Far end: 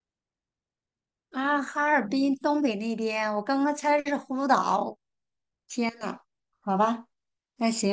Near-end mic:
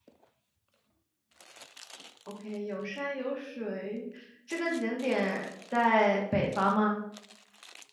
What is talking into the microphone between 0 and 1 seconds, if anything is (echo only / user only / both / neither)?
neither